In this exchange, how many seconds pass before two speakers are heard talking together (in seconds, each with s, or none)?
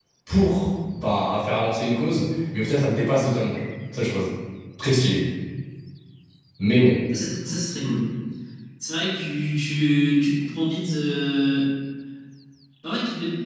none